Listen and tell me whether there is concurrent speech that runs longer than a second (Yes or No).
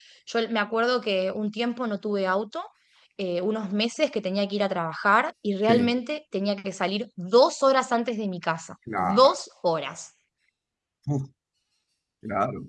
No